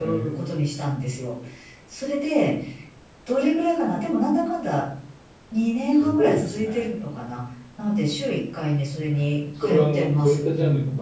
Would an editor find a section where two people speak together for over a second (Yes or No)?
Yes